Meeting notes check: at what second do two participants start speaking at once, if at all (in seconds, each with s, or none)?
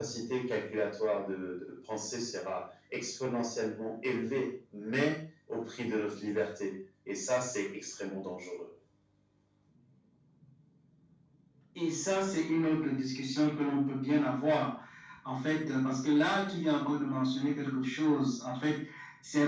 none